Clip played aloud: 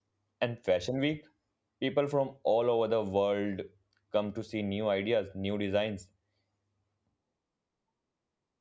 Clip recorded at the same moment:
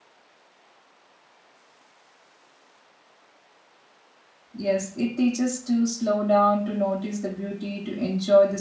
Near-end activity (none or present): present